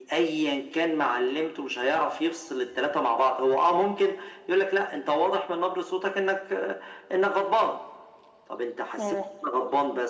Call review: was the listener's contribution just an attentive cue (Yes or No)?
Yes